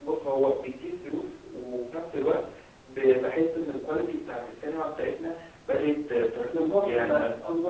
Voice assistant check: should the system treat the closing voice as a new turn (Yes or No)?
Yes